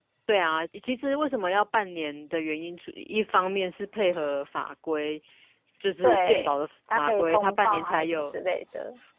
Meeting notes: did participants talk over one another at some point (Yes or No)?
Yes